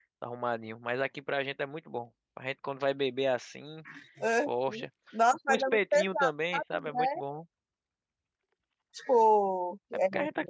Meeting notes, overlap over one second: present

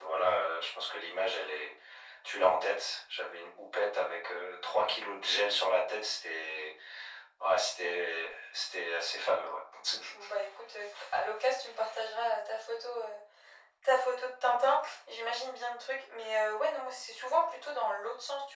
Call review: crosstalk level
none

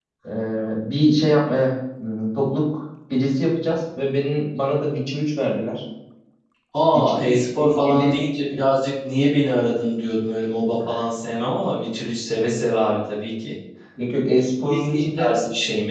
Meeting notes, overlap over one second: present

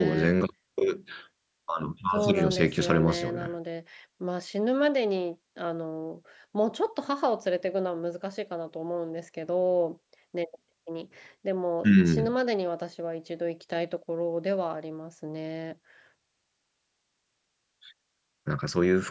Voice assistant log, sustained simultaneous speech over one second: present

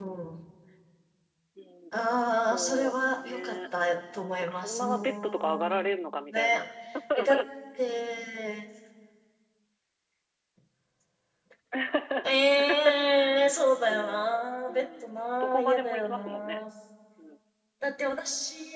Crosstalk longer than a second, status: present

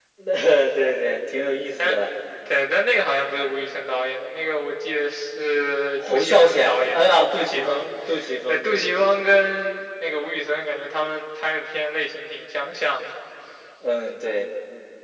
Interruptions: present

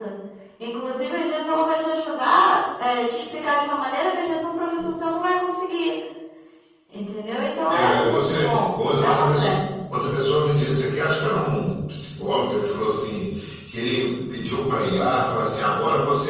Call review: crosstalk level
present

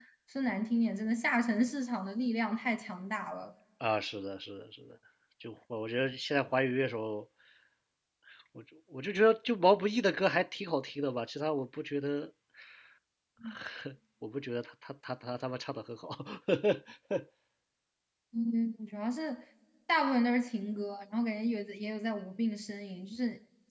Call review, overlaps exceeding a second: none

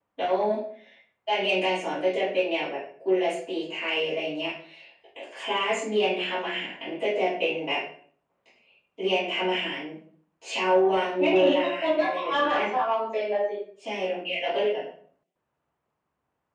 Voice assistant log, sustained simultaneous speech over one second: present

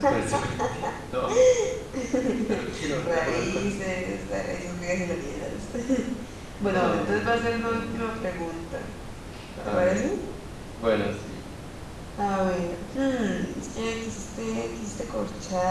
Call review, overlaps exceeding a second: present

